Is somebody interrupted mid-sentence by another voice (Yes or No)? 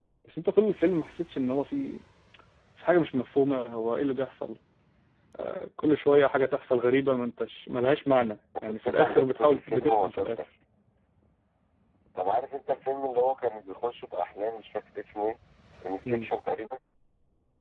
Yes